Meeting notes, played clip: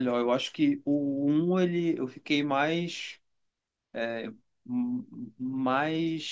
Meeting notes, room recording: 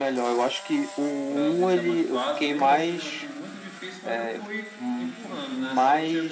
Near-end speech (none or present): present